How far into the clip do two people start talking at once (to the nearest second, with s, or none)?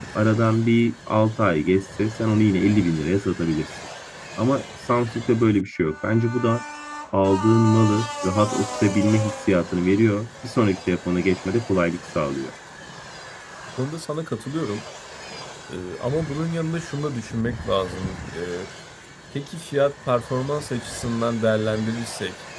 none